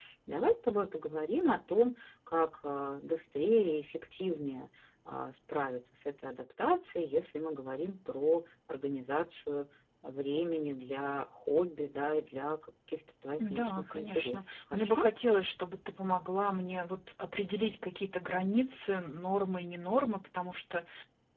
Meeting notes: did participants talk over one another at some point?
Yes, from 13.4 s

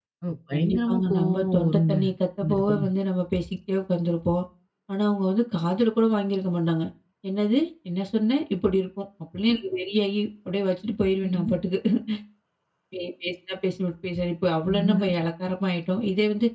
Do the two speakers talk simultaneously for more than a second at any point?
Yes, from 0.5 s

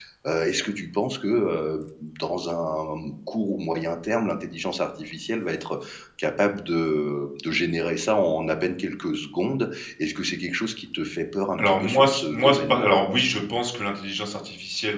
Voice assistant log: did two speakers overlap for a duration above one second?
Yes, from 11.6 s

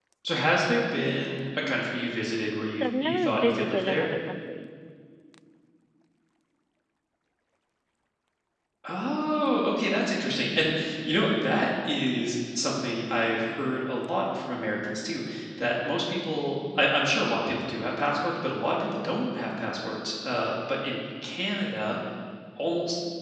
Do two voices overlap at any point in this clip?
Yes, from 2.8 s

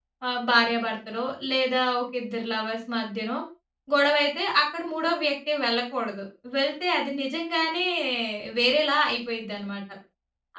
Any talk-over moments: No

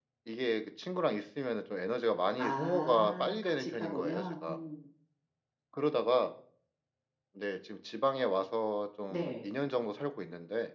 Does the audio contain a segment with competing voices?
Yes, from 2.4 s

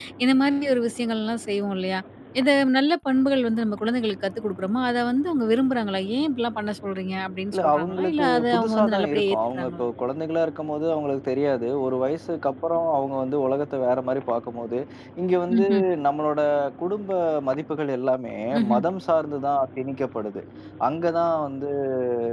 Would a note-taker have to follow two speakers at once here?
Yes, from 7.5 s

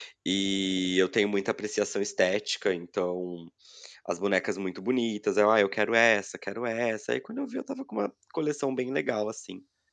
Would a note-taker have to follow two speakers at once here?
No

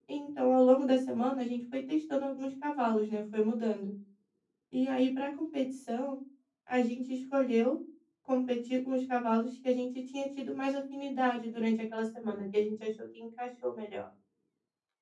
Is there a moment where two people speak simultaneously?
No

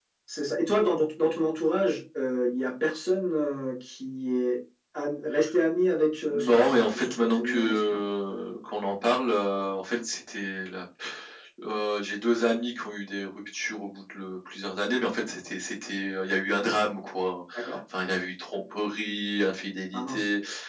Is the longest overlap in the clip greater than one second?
Yes, from 6.3 s

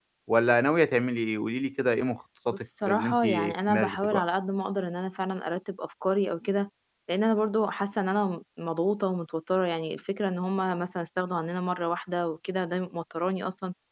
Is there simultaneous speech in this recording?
Yes, from 2.5 s

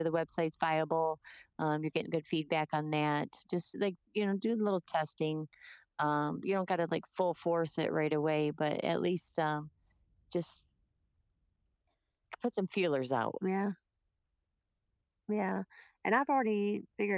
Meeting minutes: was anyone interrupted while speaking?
No

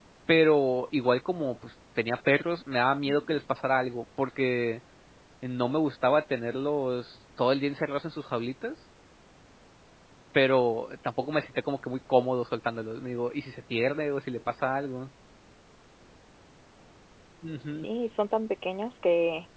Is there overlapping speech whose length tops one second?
No

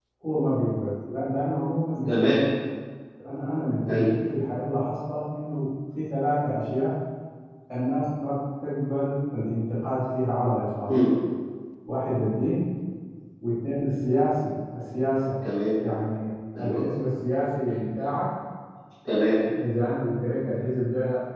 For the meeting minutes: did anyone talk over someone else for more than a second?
No

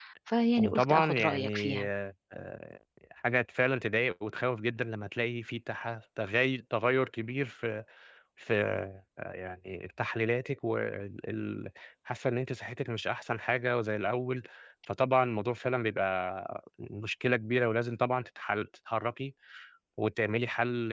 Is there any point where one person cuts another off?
Yes, from 0.6 s

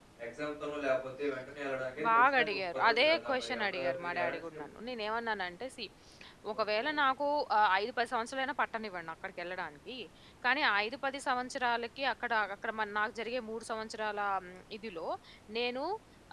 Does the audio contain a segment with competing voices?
Yes, from 2.1 s

